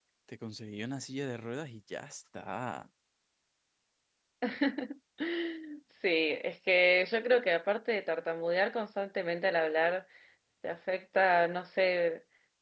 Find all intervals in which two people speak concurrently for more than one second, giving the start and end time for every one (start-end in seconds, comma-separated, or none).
none